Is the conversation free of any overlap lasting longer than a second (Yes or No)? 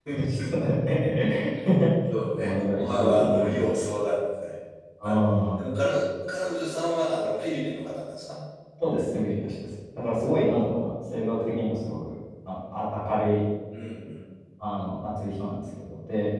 No